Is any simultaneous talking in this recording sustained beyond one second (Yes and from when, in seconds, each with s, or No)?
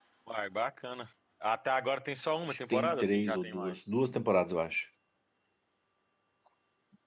Yes, from 2.5 s